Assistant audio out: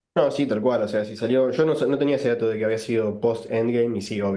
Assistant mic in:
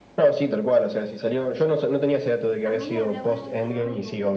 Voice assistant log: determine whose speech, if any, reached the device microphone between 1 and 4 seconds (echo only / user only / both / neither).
both